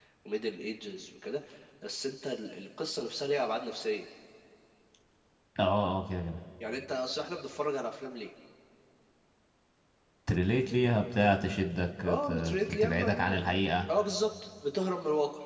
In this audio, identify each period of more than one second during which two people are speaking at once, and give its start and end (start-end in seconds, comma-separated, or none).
12.0-13.4